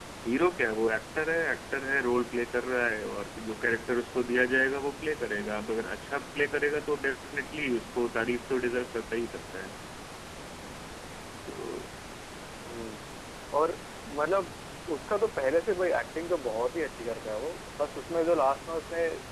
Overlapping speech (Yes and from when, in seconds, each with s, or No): No